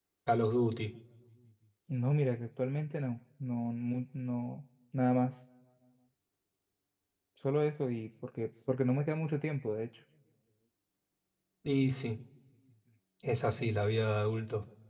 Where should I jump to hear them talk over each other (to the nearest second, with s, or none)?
none